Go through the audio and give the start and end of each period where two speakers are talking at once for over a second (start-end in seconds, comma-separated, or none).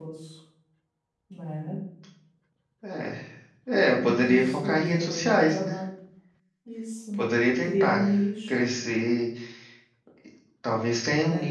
4.2-5.8